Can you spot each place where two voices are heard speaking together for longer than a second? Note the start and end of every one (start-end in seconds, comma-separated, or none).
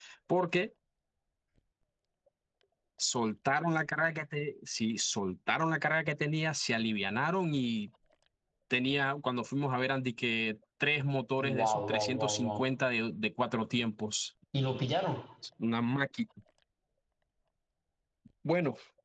11.4-12.6